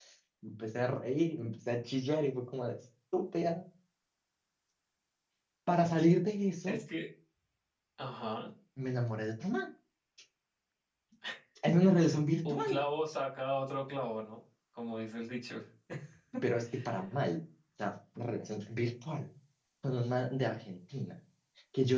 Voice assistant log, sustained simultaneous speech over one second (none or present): none